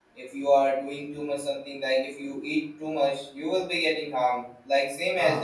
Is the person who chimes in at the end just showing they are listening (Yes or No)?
Yes